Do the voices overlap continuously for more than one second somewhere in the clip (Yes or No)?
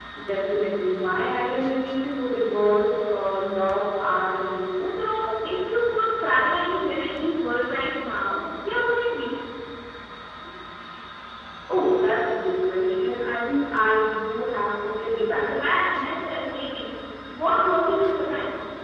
No